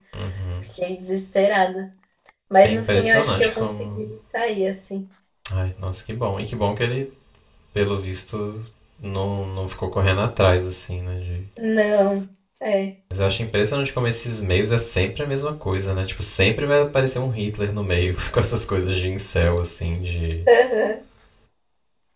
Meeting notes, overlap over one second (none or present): present